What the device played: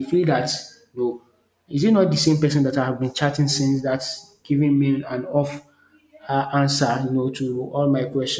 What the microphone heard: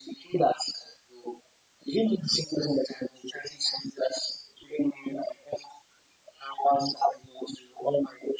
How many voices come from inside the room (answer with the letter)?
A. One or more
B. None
B